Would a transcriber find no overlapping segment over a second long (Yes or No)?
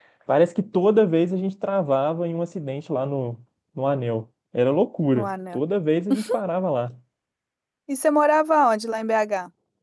Yes